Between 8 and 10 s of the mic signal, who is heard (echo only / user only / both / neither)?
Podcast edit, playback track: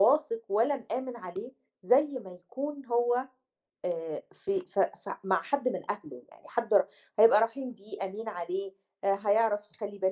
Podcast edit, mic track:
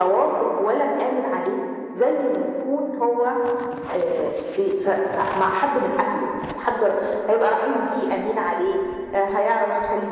echo only